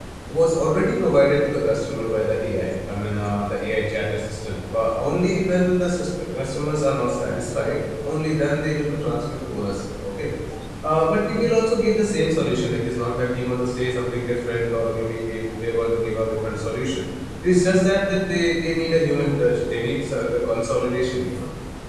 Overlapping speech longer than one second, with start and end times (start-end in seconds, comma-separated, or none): none